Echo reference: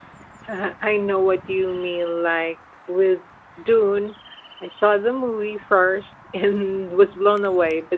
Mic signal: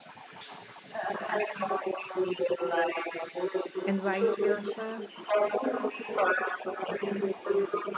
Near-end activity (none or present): present